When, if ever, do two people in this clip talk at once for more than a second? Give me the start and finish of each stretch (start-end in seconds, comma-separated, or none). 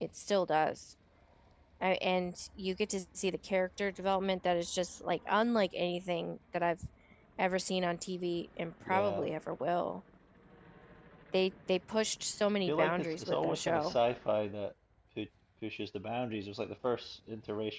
12.7-14.0